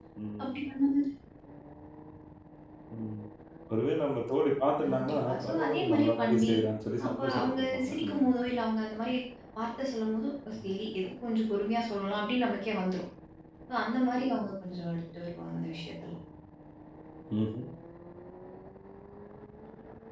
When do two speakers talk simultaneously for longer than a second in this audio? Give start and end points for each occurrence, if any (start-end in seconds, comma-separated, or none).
4.8-6.5, 7.0-8.3